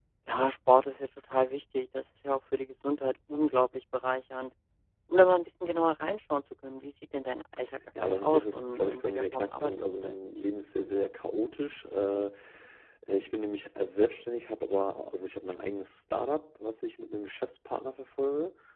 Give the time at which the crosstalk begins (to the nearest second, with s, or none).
8 s